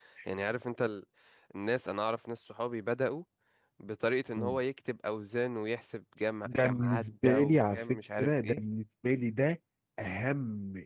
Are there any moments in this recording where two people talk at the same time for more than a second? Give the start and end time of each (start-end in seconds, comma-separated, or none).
6.4-8.6